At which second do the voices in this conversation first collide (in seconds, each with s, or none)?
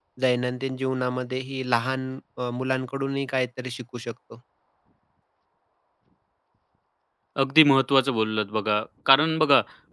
none